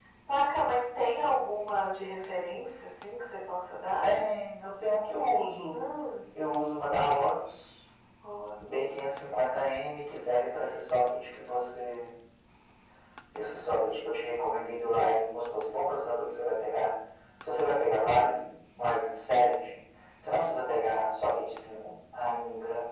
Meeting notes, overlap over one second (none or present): none